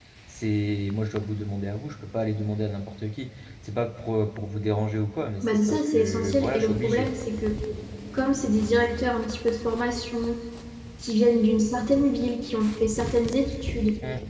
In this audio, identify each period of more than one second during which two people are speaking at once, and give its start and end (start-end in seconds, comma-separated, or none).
5.4-7.1